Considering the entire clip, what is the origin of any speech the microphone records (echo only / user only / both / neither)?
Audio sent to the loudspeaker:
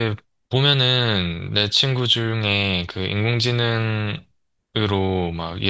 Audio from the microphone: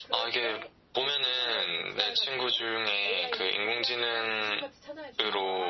both